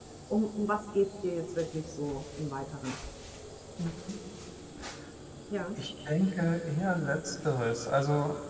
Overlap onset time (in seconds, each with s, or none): none